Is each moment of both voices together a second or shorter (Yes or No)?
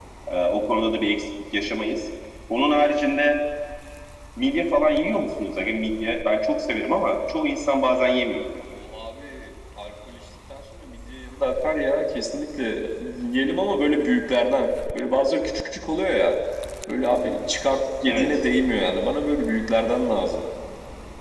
Yes